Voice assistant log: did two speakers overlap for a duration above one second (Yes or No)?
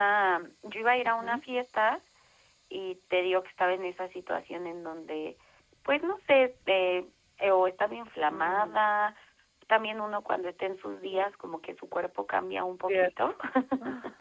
No